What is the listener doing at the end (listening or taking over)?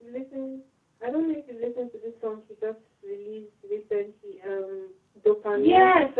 taking over